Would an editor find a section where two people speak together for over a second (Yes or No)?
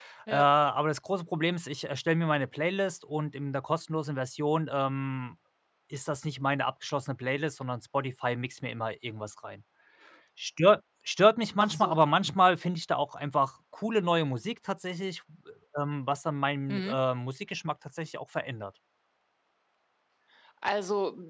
No